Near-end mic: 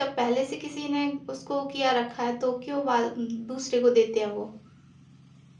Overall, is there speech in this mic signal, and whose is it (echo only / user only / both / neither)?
user only